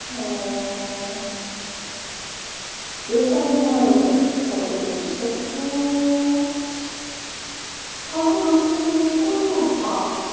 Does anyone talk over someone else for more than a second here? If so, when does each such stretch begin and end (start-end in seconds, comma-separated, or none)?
none